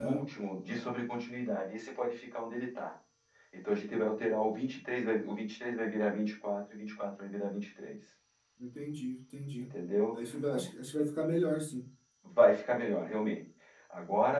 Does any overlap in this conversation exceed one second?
No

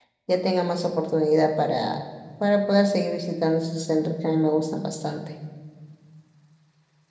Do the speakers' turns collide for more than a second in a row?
No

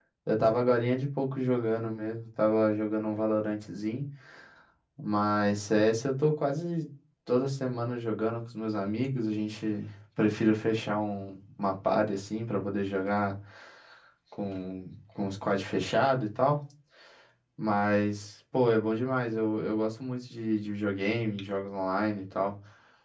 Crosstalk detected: No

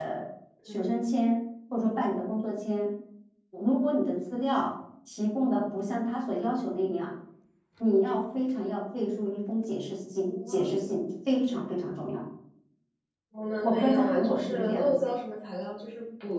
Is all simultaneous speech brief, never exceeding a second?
No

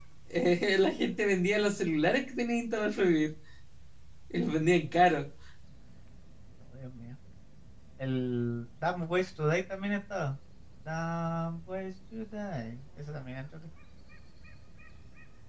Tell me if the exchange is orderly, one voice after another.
Yes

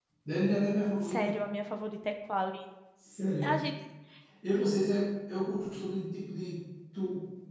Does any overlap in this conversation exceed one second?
No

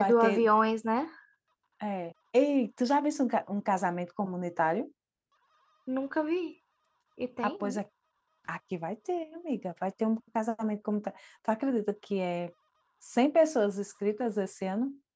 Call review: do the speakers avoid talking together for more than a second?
Yes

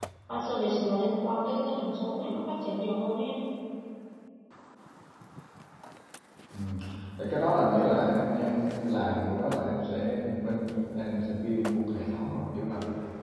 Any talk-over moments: No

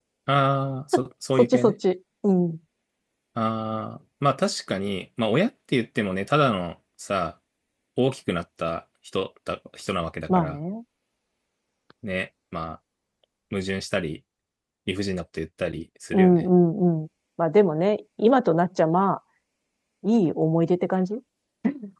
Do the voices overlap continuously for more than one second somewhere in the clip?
No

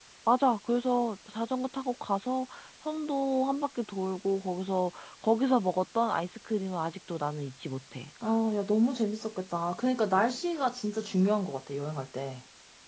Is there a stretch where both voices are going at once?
No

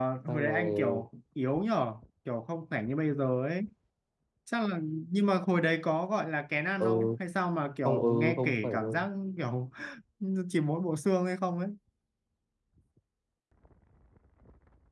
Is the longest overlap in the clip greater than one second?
Yes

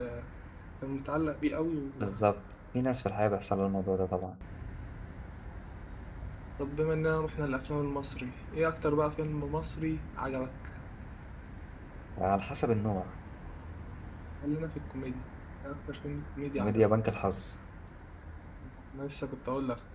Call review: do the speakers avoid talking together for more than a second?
Yes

